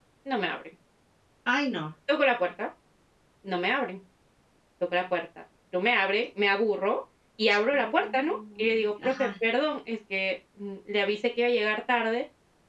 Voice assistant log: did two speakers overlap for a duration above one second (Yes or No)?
Yes